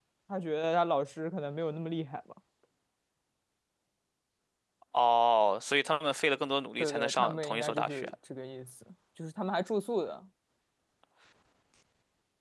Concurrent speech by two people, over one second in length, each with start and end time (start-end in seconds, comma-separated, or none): 6.8-8.1